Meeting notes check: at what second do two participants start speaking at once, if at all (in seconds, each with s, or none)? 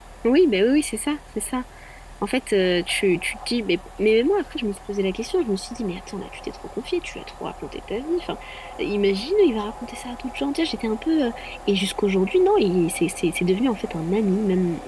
none